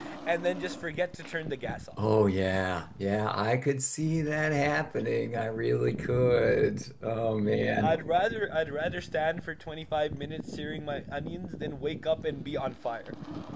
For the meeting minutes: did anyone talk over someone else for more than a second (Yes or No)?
No